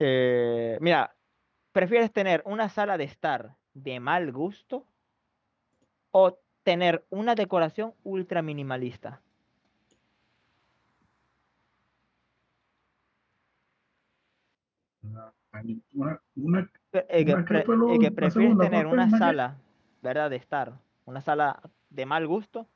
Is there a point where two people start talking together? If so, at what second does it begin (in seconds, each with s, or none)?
17.2 s